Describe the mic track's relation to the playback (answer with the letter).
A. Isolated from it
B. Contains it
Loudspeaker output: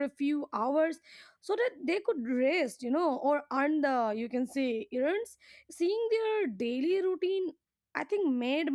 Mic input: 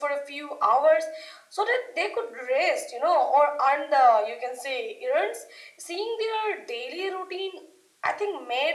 B